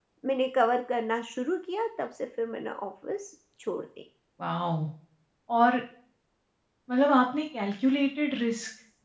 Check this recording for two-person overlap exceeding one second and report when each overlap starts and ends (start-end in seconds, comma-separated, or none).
none